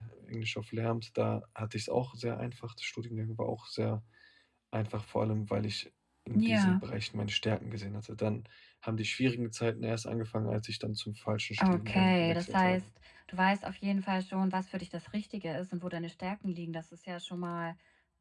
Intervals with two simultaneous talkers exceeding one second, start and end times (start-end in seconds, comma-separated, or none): 11.6-12.9